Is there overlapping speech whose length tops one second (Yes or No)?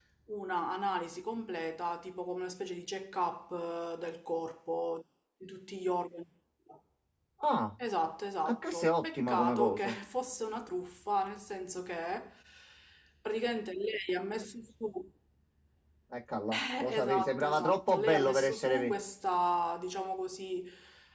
Yes